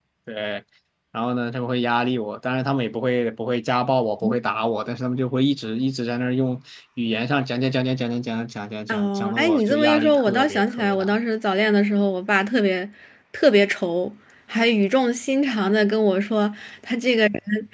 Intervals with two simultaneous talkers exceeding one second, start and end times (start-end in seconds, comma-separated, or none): 8.9-11.1